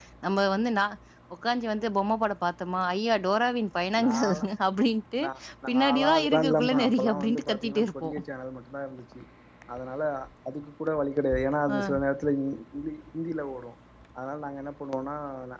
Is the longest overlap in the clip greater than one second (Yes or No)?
Yes